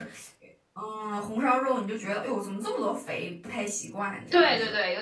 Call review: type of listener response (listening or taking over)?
taking over